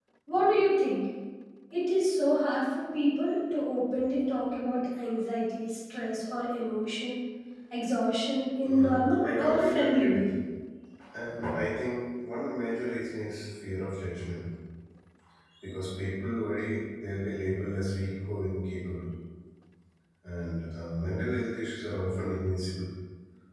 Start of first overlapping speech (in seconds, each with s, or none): 8.6 s